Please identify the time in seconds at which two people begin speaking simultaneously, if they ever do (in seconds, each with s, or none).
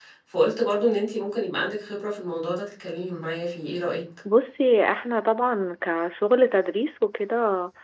none